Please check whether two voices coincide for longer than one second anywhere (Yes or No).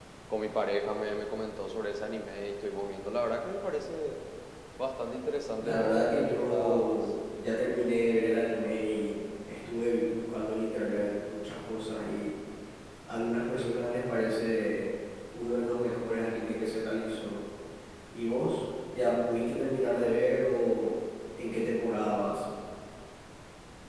Yes